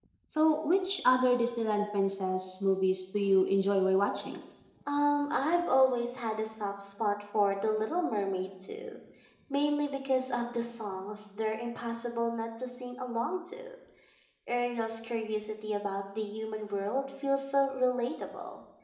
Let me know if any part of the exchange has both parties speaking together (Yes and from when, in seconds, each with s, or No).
No